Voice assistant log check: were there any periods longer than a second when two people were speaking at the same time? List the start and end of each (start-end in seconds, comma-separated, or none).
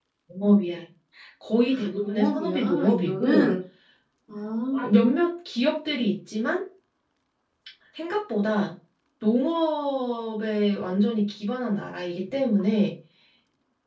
1.7-3.5